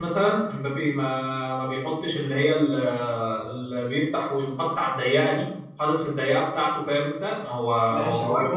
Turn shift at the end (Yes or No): Yes